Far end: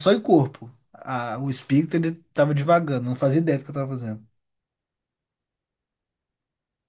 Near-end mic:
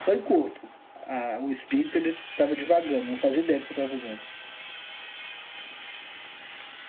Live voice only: none

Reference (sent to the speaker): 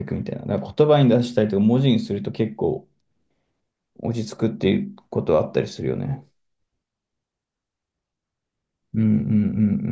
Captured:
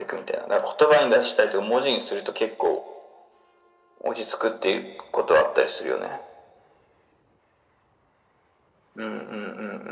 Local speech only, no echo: none

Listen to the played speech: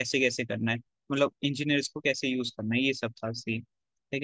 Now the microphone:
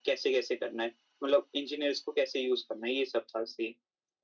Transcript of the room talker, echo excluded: none

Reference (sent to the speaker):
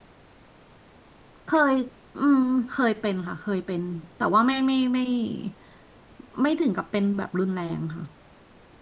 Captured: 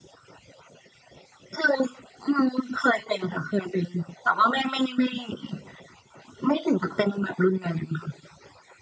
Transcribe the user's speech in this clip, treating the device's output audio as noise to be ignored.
none

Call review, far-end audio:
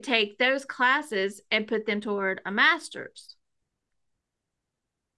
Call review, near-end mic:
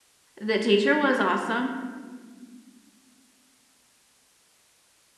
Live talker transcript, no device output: The teacher was awesome,

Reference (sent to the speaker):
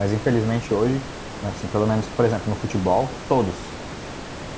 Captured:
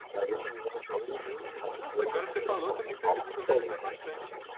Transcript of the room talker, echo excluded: Eu. nossa, agora você falou, também percebi que eu vejo até bastante

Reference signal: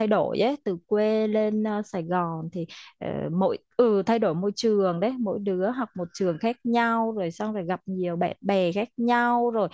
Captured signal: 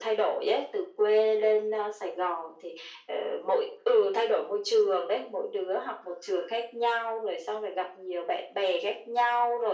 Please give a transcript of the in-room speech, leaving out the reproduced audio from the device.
none

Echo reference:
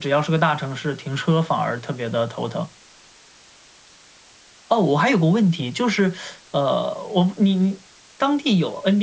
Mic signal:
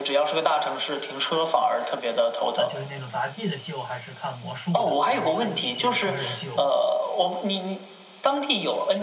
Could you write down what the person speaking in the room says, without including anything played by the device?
啊、就是那种杂技的秀，还是看魔术的，然后还有一些成人秀。

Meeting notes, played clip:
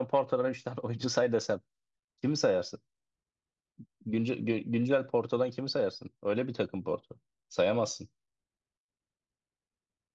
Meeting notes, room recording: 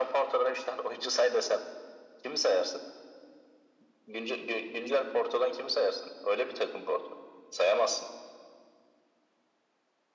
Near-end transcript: none

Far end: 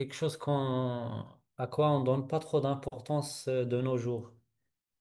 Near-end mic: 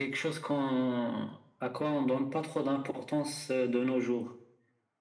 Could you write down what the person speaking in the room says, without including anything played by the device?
none

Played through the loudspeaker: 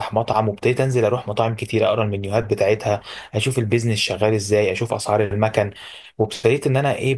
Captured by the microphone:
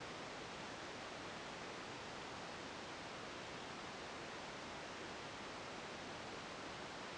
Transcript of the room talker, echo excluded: none

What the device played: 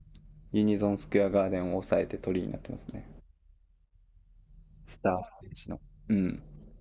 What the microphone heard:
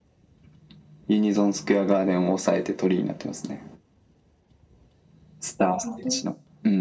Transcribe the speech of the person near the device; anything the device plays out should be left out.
本当

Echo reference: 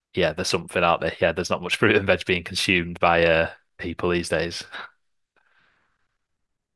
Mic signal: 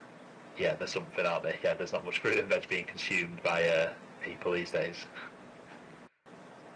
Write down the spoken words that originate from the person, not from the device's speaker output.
none

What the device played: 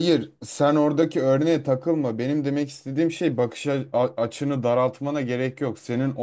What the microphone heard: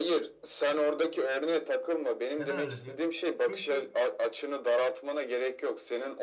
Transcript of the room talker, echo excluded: Neden öyle diyor? Çünkü

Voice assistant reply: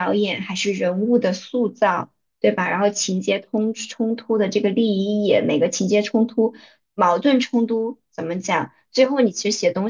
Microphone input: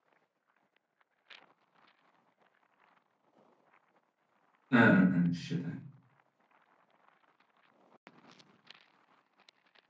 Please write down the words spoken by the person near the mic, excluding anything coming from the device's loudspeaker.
嗯嗯嗯，是的，

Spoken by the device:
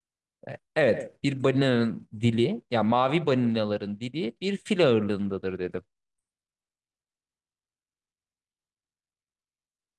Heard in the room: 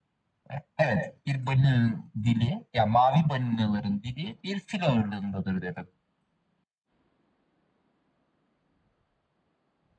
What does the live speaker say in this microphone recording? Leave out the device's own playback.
none

